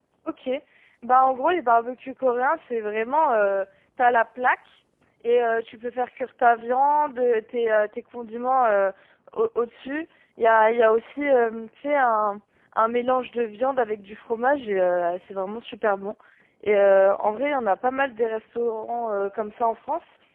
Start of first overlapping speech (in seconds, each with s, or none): none